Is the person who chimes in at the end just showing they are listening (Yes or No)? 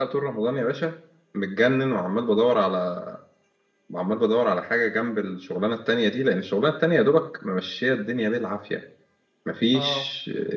Yes